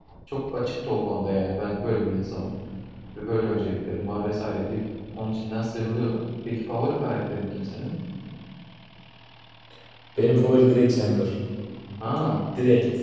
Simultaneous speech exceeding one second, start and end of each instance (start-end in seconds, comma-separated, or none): none